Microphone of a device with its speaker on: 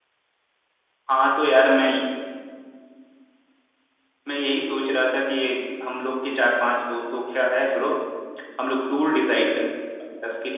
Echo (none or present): none